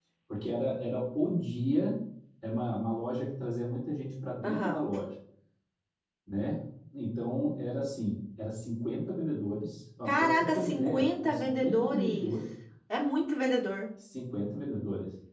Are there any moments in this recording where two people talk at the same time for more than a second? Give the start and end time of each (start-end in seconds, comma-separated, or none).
10.1-12.3